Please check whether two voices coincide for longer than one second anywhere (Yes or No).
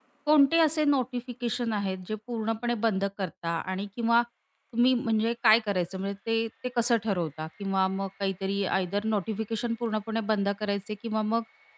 No